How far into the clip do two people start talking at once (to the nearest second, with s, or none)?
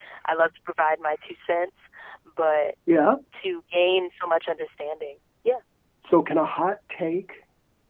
none